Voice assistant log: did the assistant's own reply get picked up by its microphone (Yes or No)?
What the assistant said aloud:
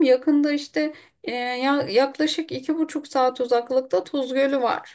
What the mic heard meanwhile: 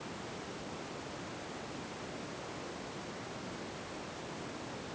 No